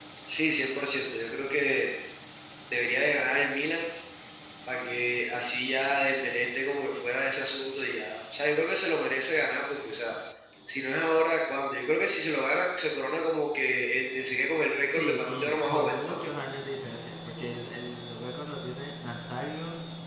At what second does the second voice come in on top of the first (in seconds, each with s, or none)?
14.9 s